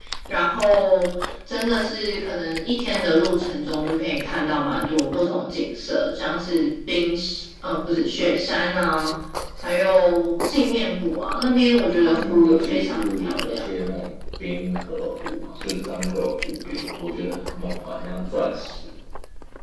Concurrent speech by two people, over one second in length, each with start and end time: 12.0-13.6

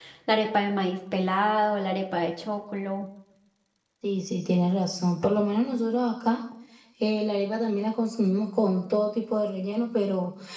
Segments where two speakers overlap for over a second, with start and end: none

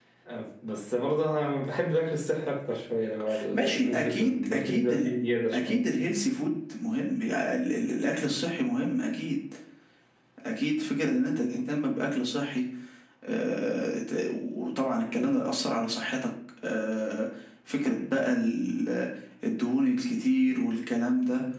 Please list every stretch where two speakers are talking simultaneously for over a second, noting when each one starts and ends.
3.5-5.1

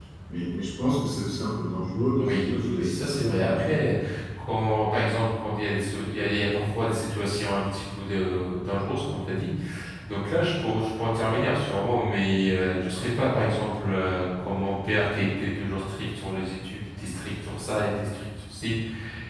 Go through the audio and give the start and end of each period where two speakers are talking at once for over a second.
2.2-3.8

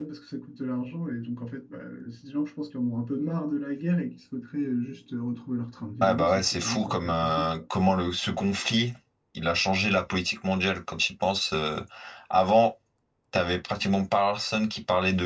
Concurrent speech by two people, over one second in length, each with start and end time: 6.0-7.6

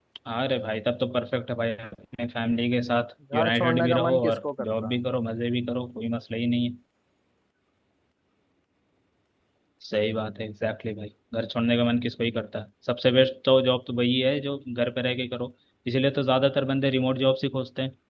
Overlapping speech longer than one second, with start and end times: 3.3-5.0

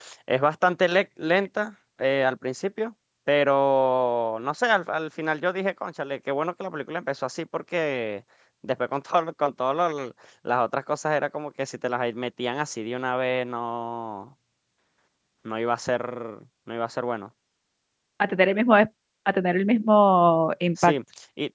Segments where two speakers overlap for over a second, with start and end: none

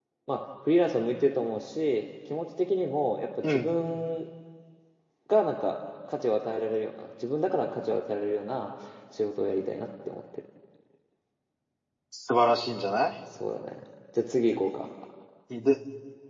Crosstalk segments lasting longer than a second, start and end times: none

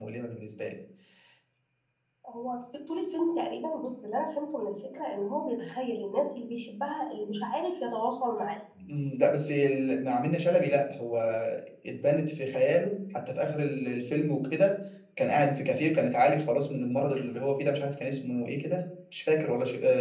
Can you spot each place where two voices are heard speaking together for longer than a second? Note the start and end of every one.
none

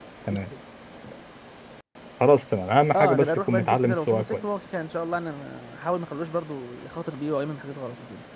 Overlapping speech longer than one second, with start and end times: 2.9-4.4

